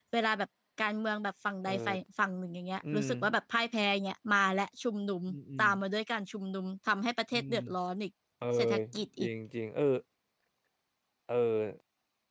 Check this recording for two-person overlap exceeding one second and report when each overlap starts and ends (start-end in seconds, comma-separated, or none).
none